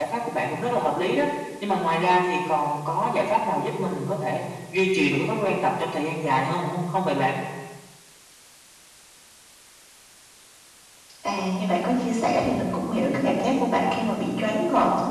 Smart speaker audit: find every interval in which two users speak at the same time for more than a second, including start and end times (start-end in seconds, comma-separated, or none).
none